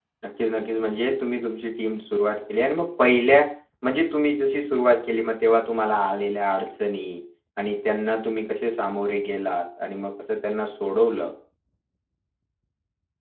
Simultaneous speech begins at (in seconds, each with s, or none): none